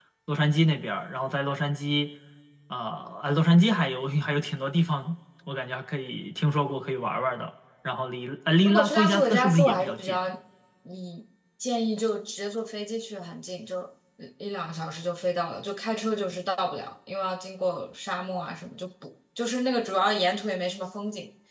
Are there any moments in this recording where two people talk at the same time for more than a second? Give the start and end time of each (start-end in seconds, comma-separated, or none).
8.6-10.2